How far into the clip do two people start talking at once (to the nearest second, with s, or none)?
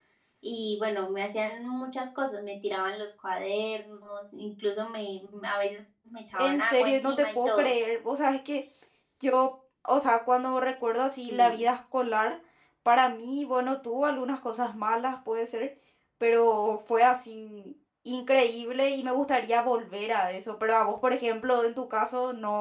6 s